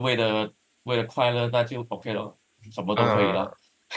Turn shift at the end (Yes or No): Yes